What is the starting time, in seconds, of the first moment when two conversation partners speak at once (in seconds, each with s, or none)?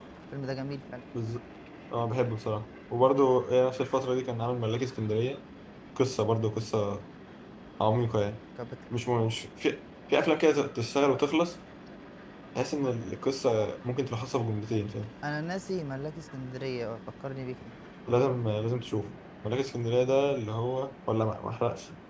none